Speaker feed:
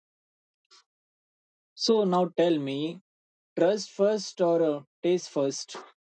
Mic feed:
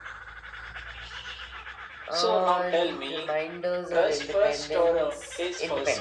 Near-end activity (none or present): present